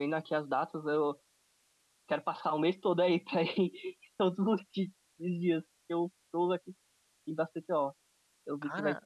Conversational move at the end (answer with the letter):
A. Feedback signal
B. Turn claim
A